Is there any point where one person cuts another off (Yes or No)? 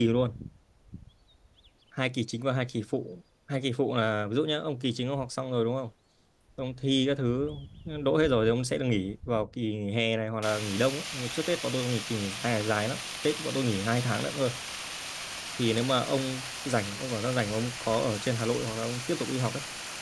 No